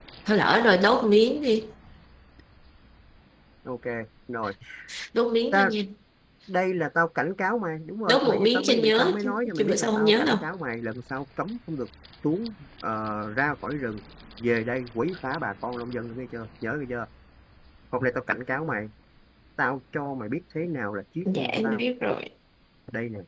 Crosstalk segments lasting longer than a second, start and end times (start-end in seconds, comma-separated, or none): 8.1-10.4